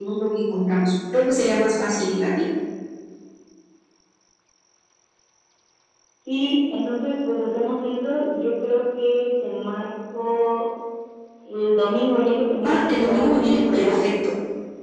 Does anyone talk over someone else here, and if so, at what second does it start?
12.6 s

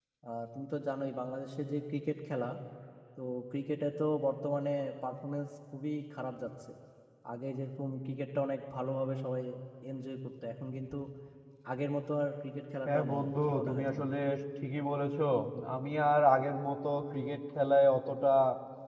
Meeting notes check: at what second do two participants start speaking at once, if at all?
12.8 s

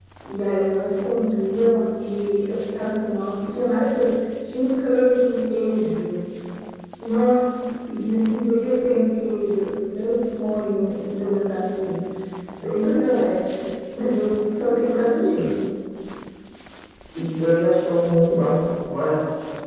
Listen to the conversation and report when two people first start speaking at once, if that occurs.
none

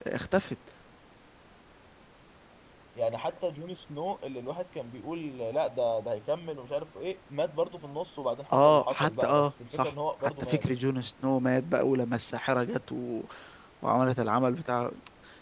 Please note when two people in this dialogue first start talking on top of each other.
8.5 s

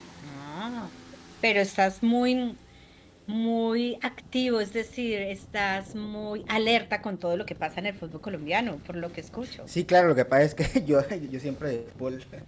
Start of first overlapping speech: none

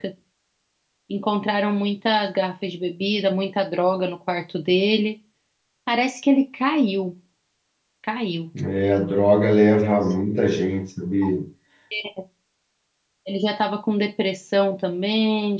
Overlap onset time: none

